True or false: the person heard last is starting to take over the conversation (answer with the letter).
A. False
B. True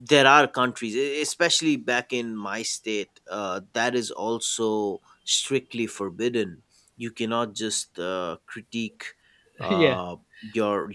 A